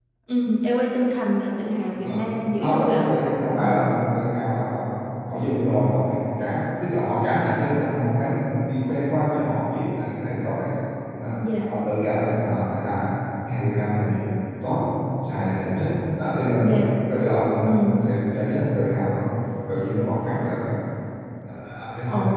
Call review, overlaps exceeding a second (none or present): none